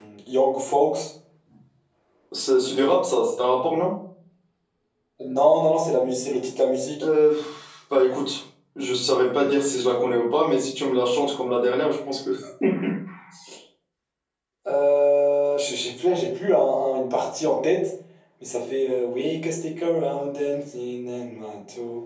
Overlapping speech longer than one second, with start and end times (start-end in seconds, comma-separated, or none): none